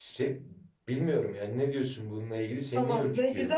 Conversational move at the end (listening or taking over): taking over